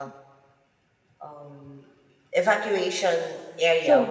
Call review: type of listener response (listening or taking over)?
listening